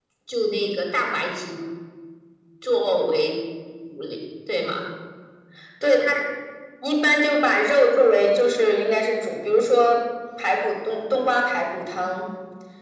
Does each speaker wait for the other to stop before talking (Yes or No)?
Yes